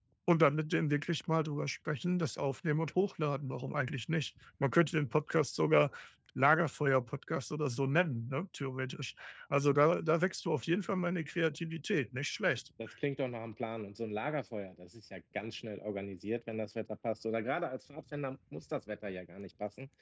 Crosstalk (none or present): none